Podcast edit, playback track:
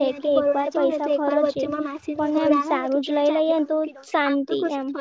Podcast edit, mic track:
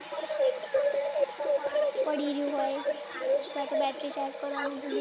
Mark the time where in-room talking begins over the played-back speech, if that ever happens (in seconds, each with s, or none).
2.1 s